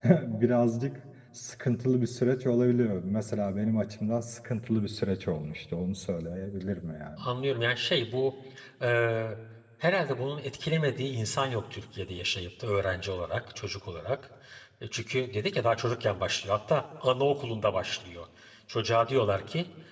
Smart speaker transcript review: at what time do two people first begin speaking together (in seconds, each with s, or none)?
none